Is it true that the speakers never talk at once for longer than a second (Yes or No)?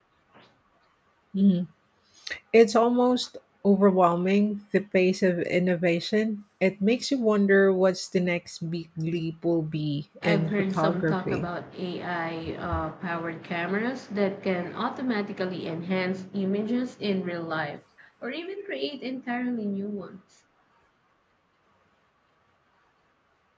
No